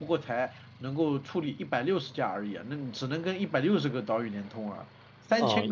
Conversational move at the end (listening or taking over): taking over